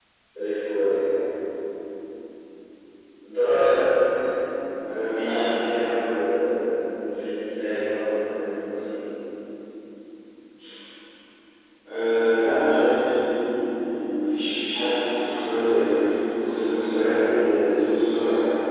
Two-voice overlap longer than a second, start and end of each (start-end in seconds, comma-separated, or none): none